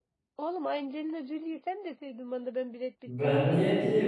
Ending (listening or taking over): taking over